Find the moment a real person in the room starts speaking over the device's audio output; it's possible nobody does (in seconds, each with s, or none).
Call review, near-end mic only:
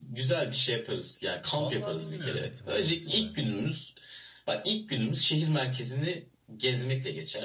1.6 s